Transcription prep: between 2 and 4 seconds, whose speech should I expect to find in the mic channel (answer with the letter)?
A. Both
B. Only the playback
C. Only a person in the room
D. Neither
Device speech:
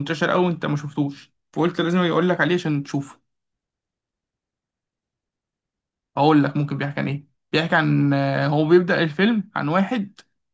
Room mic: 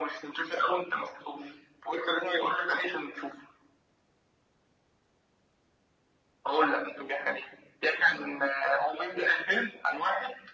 B